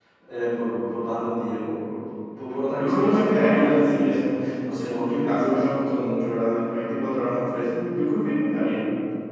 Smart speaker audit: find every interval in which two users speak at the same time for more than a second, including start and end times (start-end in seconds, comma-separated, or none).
2.7-5.7